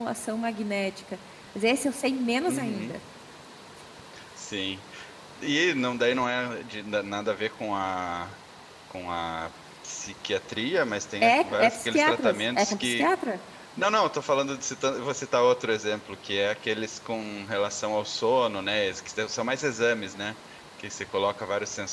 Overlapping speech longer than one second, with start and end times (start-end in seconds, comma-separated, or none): 11.2-13.1